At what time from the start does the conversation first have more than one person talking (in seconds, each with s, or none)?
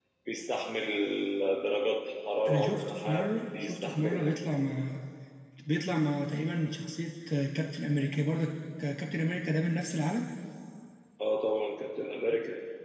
2.5 s